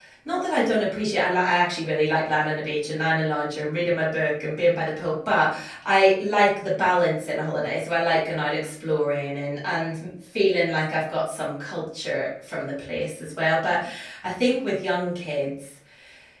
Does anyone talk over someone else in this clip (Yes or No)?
No